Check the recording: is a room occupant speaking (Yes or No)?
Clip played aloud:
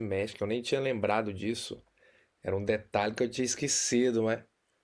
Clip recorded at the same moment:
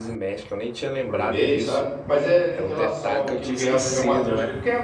Yes